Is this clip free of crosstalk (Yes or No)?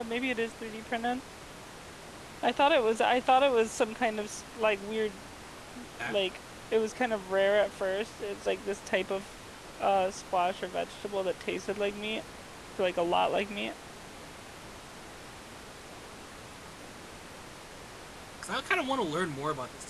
Yes